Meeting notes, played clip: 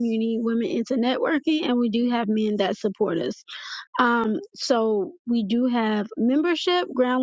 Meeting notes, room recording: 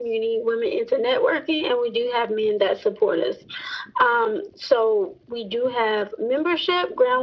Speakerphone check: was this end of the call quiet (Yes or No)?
Yes